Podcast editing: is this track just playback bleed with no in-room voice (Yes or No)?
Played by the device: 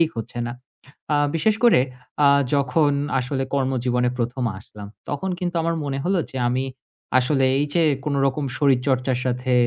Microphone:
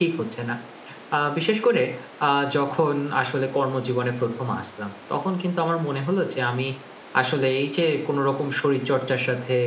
Yes